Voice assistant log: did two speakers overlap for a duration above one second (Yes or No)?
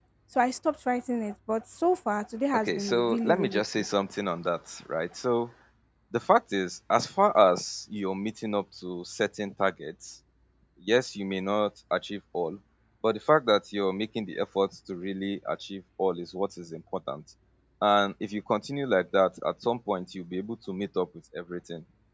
Yes